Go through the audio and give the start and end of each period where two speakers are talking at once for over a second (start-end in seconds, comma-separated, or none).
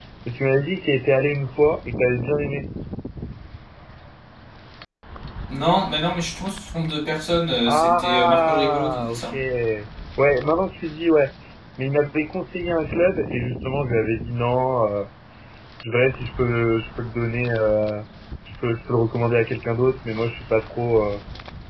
7.7-9.2